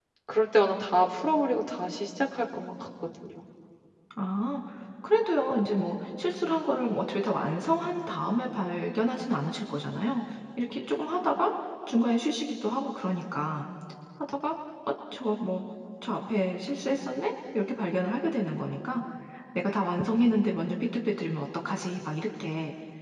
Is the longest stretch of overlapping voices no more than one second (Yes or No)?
Yes